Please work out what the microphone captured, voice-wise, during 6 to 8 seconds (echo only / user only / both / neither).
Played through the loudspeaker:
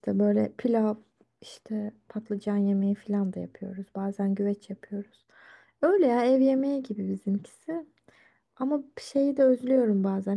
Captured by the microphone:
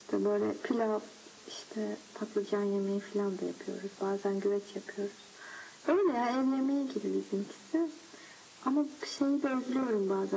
echo only